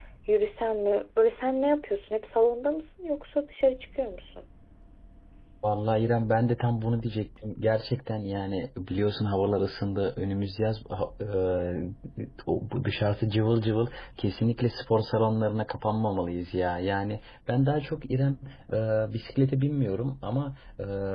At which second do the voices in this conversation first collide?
none

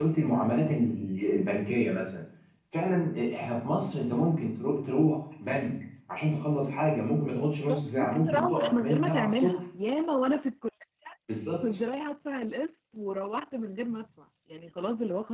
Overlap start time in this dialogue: 7.7 s

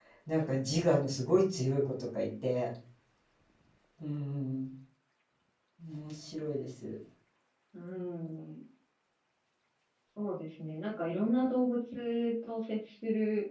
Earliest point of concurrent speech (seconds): none

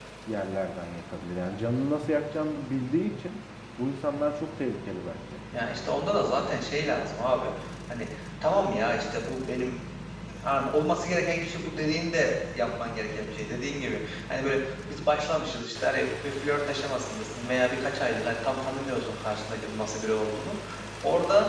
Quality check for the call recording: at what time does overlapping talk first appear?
none

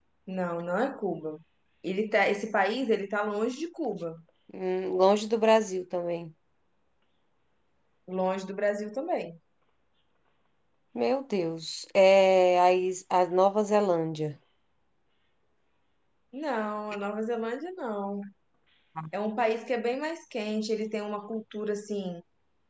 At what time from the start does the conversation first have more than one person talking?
none

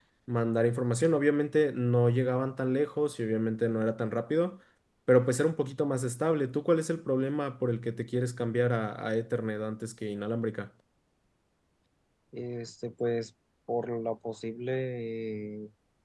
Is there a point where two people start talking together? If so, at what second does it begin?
none

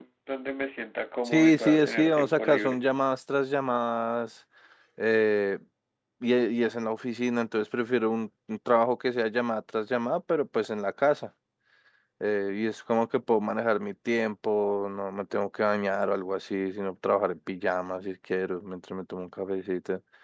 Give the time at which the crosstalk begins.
1.2 s

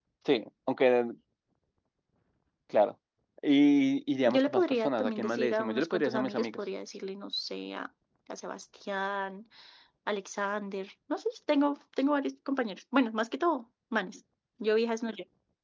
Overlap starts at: 4.2 s

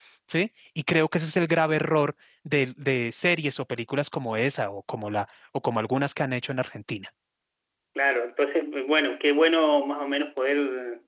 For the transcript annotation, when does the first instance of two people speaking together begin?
none

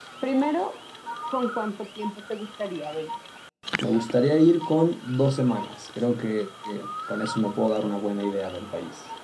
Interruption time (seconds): none

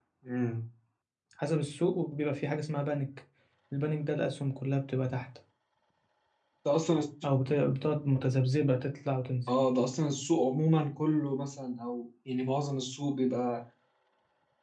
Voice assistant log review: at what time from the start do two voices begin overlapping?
none

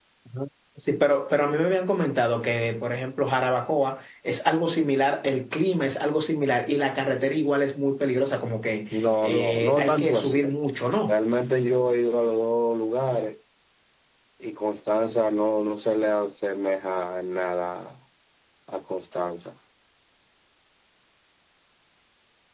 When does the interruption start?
8.9 s

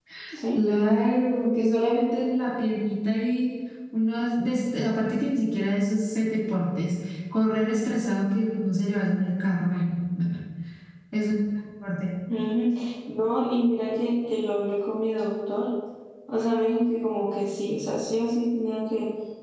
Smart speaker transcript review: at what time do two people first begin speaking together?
none

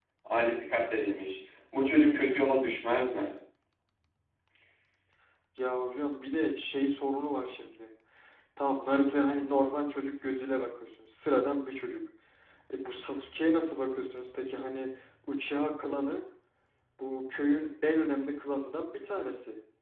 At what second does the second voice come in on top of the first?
none

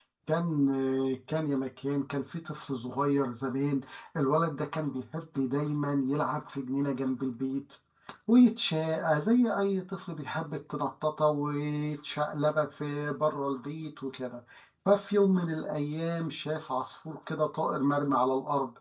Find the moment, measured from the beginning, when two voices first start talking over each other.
none

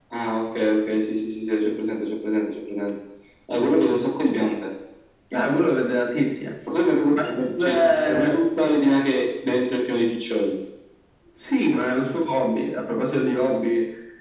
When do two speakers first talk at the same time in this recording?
7.0 s

